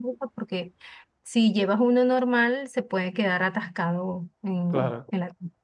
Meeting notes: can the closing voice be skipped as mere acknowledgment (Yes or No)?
Yes